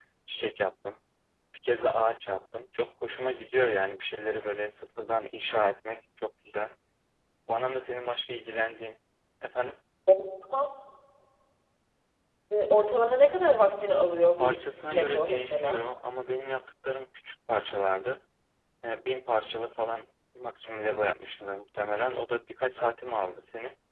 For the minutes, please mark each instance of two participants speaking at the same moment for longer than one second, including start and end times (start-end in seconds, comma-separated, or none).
14.4-15.8